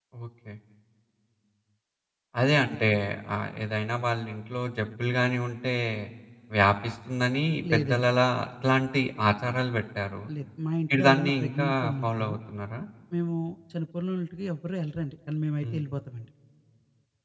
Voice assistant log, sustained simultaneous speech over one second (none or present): present